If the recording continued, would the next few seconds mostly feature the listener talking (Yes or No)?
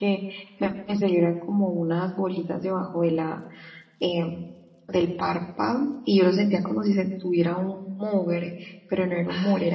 No